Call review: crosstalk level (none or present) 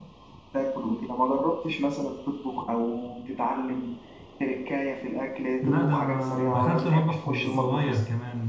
present